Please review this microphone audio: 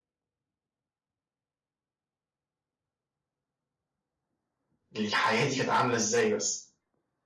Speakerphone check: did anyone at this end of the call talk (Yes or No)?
Yes